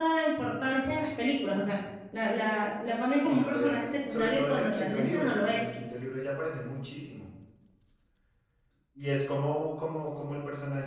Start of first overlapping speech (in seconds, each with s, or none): 3.1 s